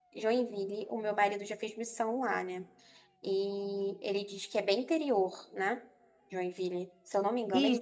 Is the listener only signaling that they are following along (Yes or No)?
No